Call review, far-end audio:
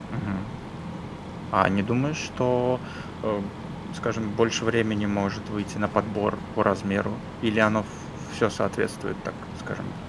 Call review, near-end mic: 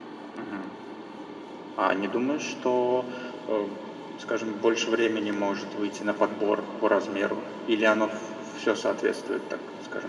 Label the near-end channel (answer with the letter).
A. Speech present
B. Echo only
B